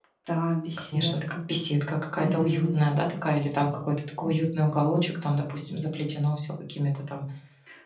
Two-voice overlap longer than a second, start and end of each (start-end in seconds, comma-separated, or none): none